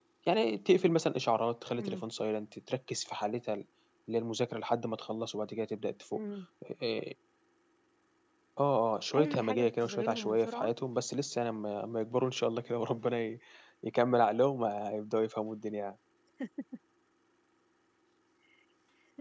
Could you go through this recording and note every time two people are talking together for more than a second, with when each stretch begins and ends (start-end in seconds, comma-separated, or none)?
9.2-10.7